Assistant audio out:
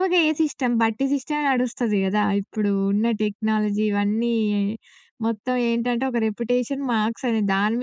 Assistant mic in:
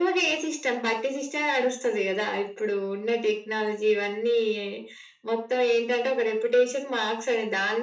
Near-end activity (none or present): none